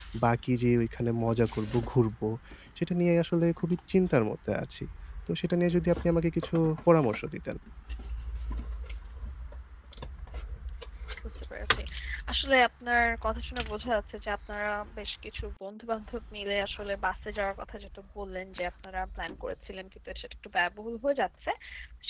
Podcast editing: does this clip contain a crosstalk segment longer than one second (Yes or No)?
No